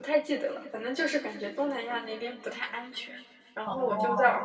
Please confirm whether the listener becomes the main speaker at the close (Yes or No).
No